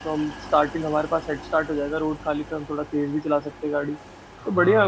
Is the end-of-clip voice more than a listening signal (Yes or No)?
Yes